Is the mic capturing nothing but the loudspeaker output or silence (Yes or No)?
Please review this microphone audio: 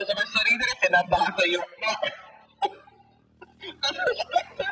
Yes